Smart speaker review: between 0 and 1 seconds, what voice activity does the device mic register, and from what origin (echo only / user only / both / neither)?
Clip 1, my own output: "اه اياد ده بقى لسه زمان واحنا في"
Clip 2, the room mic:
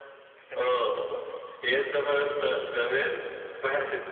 both